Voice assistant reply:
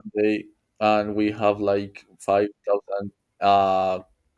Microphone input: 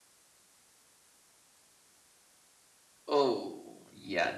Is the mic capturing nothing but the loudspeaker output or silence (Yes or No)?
No